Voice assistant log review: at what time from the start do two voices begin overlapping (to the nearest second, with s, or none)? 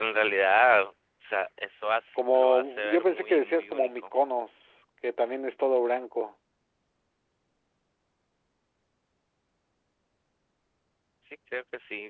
2 s